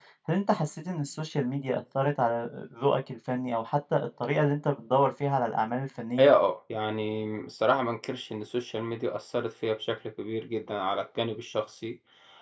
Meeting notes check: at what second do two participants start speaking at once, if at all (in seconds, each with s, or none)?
none